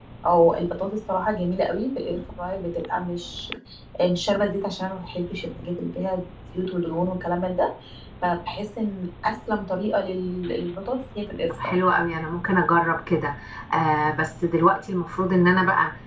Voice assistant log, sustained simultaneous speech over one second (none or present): none